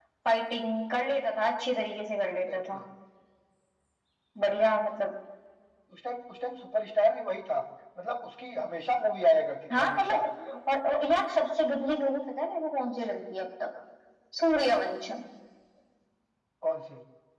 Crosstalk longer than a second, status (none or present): none